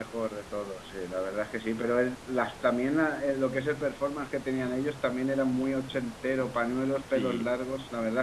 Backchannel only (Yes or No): Yes